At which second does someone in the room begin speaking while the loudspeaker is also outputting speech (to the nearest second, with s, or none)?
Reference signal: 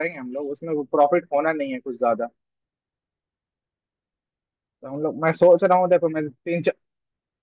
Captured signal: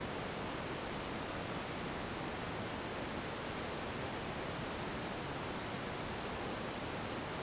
none